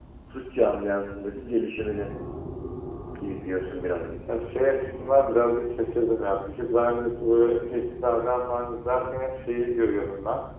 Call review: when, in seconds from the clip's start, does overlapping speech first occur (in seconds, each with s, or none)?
none